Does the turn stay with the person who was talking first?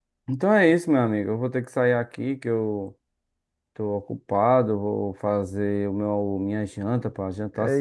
No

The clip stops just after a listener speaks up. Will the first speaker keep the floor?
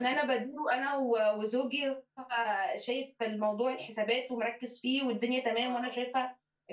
Yes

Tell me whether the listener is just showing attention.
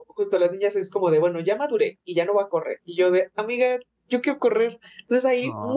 Yes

